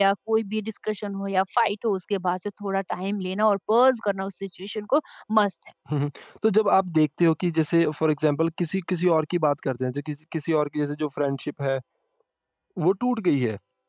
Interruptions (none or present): none